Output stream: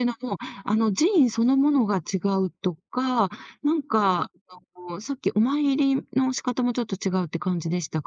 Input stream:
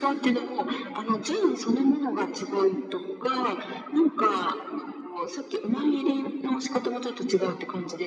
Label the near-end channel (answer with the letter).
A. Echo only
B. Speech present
A